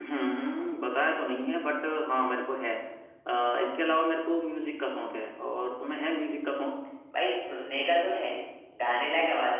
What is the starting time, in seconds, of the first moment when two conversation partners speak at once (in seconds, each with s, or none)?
none